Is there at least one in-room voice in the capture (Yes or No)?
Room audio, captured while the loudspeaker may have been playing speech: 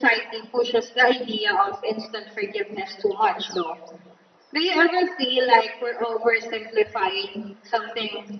No